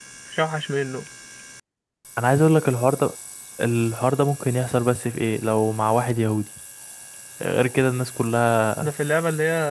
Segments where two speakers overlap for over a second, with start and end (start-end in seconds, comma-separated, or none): none